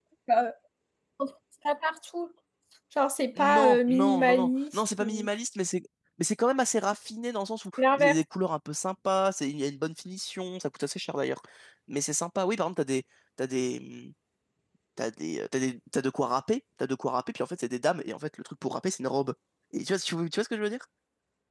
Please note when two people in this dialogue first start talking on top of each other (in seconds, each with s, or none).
3.4 s